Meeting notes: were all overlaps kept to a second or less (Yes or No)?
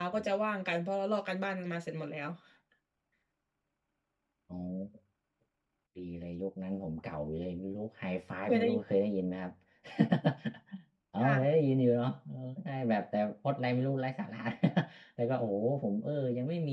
Yes